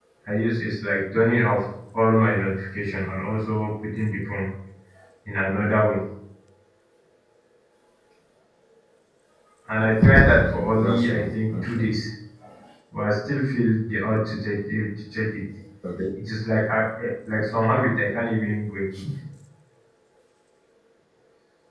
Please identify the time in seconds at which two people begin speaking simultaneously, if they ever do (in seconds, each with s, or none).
10.3 s